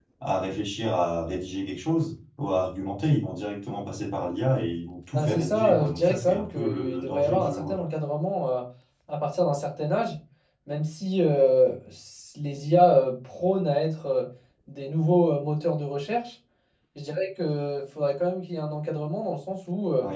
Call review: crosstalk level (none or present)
present